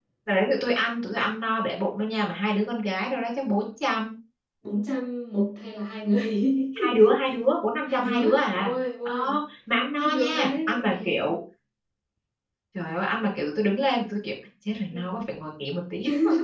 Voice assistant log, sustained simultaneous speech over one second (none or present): present